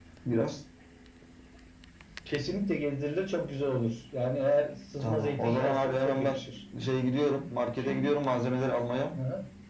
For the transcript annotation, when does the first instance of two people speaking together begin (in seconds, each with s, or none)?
5.0 s